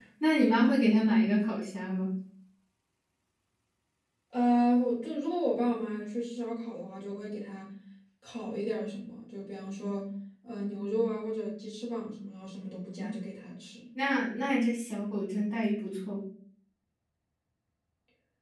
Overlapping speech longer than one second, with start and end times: none

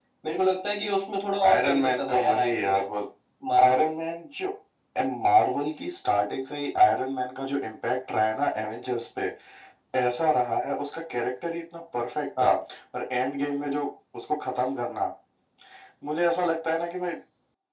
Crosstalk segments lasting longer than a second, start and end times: 1.5-2.9

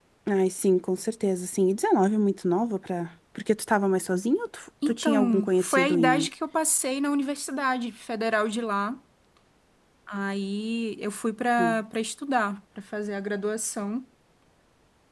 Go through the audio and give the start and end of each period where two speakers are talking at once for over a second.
4.9-6.3

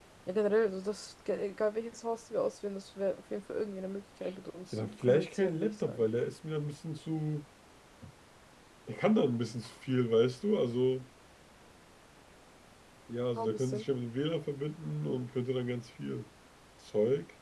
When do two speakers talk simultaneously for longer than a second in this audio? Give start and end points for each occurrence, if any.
4.7-6.0

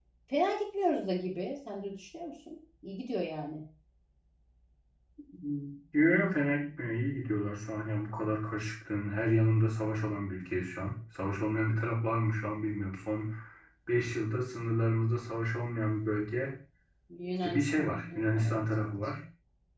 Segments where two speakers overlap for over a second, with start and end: 17.4-18.9

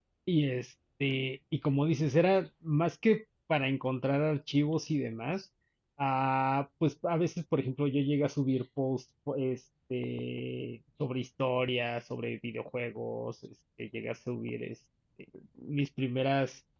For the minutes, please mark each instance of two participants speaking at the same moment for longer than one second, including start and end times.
none

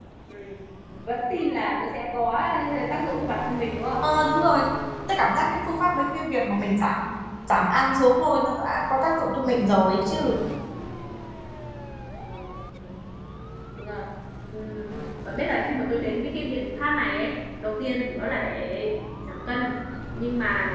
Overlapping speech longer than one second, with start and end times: none

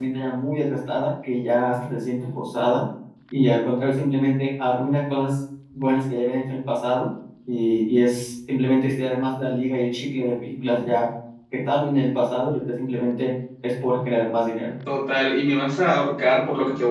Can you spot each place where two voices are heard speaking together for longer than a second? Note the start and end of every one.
none

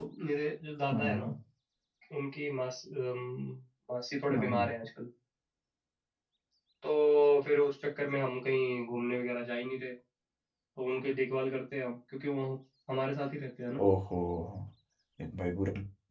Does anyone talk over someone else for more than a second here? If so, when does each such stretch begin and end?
none

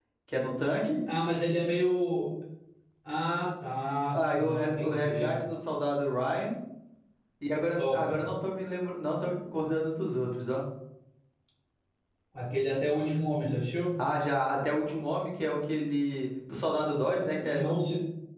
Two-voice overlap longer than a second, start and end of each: 4.1-5.4

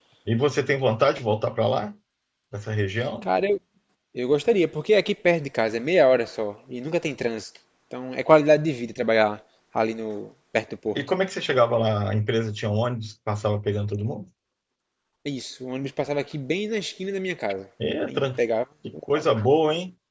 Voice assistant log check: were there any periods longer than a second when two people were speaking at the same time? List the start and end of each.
none

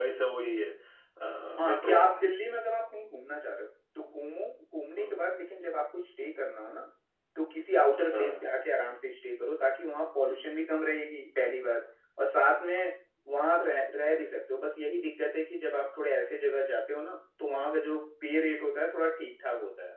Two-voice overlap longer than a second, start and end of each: none

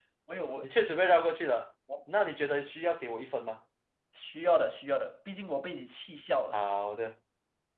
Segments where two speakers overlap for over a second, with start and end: none

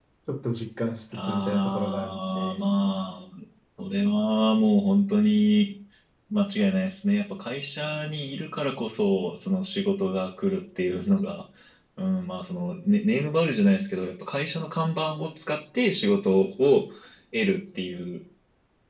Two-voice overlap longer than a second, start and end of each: 1.3-2.6

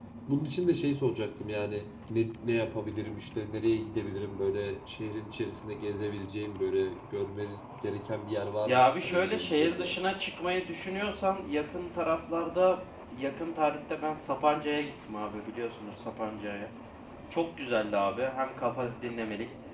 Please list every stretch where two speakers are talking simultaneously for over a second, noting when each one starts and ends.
8.6-10.0

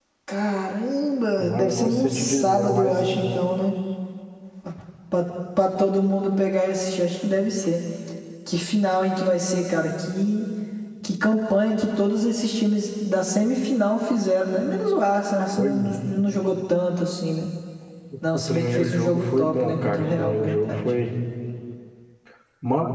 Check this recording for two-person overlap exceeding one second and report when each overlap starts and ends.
1.4-3.0, 18.3-20.8

